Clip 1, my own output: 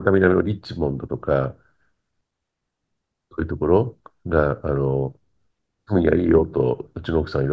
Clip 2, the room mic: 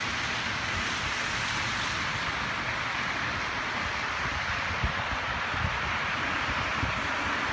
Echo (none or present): none